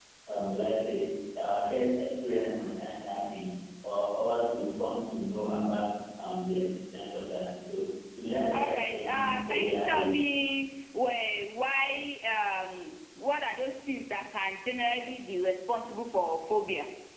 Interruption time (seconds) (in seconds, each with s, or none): 8.5 s